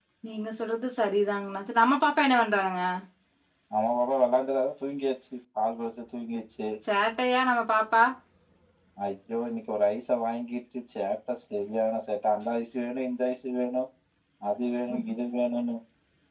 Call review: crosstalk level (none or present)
none